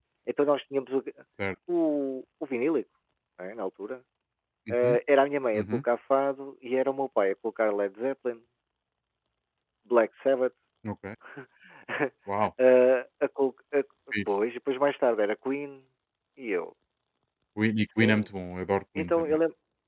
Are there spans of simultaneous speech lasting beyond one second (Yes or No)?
No